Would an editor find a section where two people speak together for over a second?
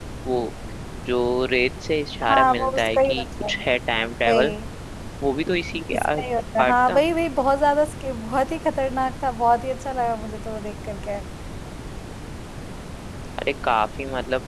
Yes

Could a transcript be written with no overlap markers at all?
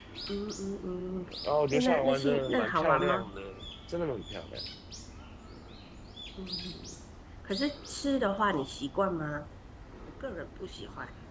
No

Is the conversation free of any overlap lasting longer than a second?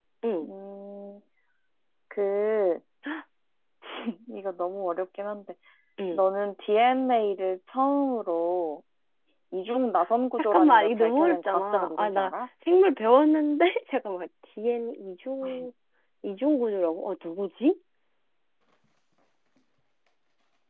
No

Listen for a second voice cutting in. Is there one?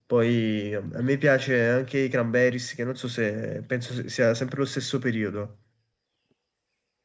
No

